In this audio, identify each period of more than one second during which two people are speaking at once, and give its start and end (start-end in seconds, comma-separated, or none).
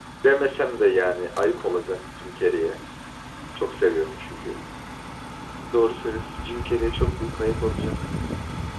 none